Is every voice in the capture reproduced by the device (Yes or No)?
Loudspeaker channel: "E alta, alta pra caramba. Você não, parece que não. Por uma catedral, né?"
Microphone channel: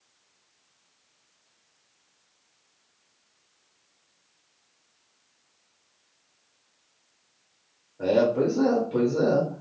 No